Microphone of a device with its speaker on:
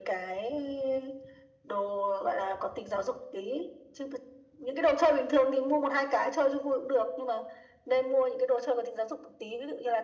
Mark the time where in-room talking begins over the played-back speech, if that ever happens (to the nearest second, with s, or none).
none